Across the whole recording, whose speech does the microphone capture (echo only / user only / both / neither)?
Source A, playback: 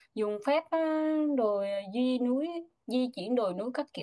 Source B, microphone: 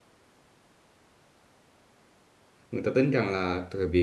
user only